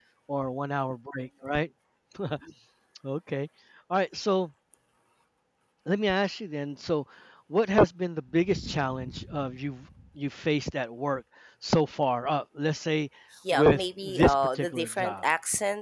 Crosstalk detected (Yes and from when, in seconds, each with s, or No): Yes, from 13.5 s